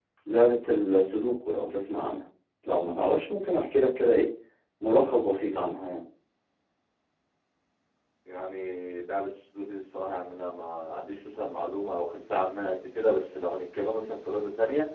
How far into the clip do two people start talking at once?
none

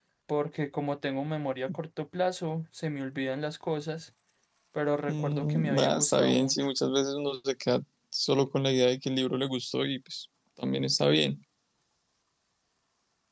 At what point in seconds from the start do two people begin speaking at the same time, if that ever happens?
5.1 s

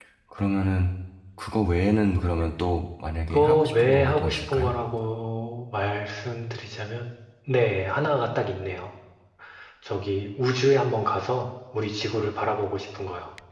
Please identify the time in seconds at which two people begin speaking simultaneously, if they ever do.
3.3 s

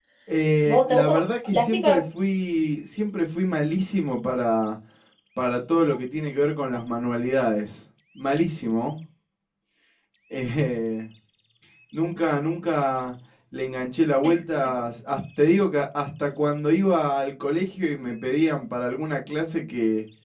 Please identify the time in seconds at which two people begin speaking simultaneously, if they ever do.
0.7 s

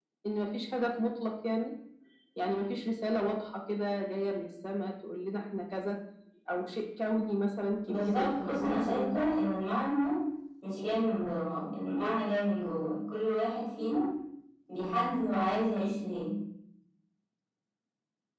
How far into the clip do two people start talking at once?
7.9 s

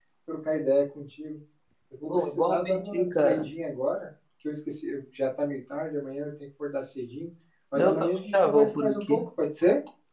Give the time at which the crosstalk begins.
2.1 s

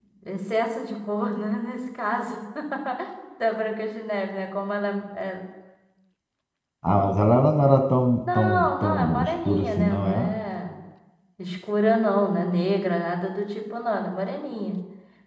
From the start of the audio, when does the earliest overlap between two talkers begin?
8.3 s

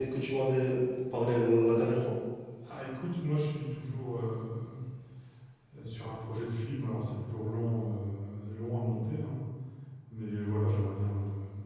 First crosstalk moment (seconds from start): none

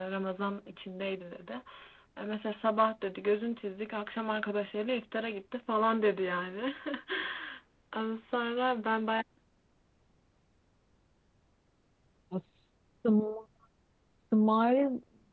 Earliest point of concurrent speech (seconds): none

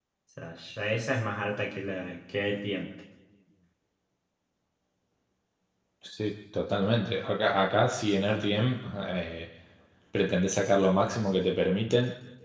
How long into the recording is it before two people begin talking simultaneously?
none

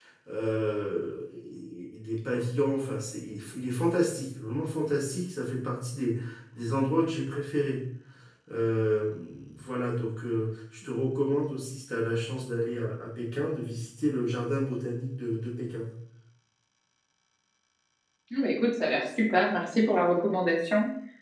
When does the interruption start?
none

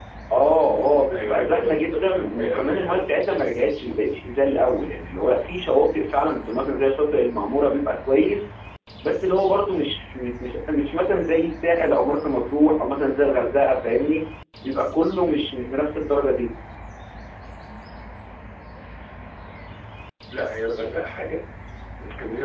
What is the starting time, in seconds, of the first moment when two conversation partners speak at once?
1.1 s

